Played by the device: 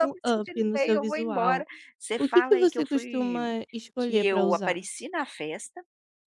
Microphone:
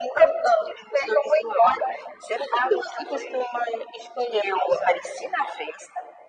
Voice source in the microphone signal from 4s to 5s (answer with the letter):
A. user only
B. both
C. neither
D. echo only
D